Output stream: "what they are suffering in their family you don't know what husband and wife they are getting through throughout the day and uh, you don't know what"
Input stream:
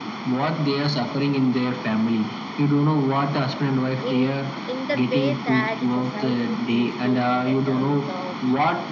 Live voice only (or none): in in the way that society thinks, be it in the terms of